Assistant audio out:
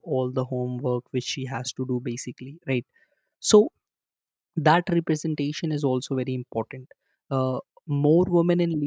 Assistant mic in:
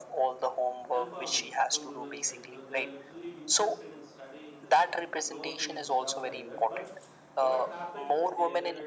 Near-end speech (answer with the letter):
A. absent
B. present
B